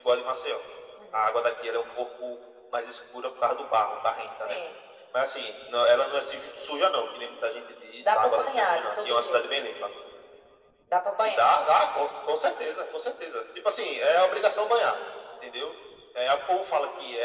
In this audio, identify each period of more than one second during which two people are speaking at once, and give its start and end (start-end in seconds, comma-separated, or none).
8.0-9.4